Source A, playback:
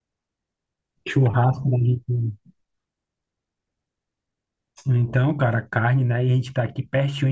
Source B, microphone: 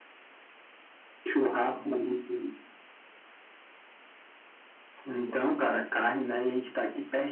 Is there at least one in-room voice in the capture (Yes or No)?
No